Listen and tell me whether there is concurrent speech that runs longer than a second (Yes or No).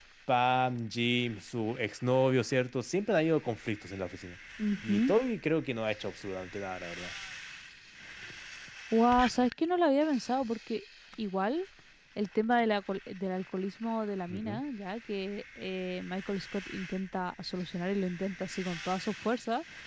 No